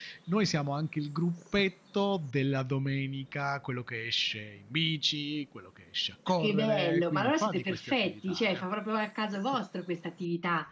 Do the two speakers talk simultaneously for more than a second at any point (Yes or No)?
Yes